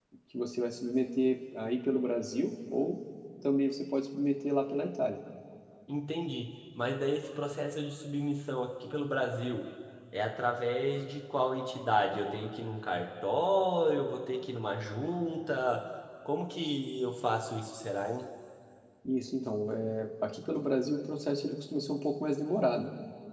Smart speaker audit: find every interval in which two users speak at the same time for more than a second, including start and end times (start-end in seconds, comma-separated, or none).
none